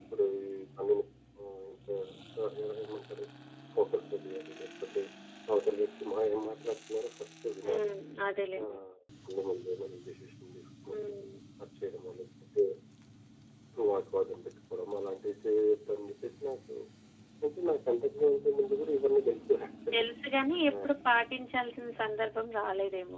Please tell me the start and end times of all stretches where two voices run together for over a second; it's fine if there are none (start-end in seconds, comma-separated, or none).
none